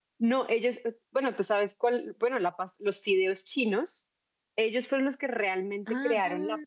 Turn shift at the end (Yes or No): No